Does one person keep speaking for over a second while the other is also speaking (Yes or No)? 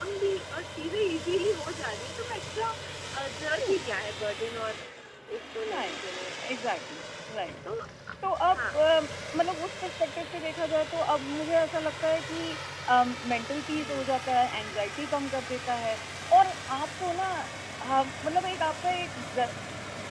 No